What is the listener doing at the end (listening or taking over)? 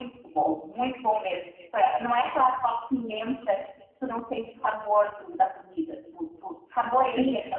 taking over